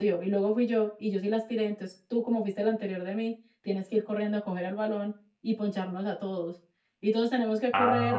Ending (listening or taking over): listening